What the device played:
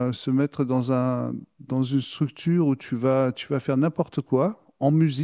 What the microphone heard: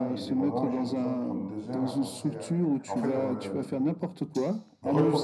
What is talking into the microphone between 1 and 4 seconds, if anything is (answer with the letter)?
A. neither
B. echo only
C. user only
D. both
D